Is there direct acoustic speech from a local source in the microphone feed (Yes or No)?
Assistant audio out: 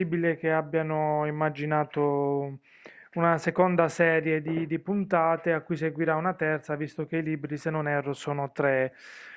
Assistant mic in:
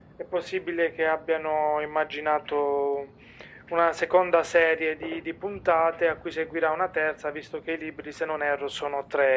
No